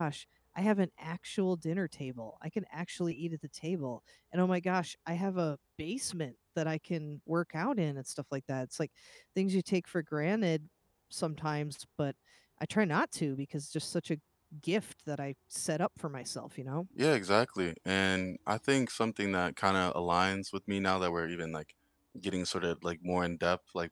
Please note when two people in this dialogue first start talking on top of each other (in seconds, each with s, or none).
none